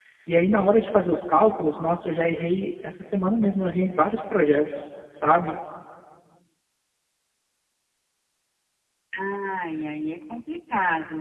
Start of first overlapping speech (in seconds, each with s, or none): none